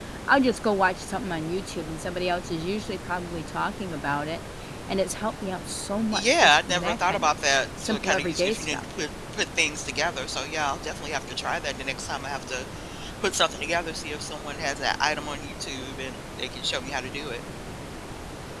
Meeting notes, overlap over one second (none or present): present